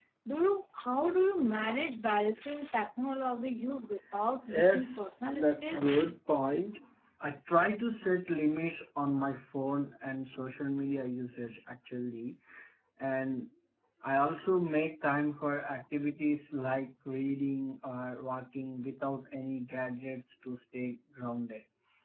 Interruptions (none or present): present